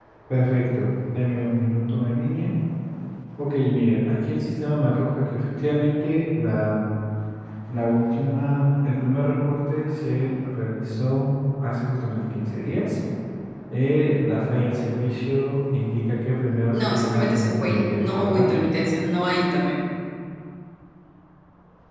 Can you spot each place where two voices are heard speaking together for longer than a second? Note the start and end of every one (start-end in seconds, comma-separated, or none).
16.7-18.5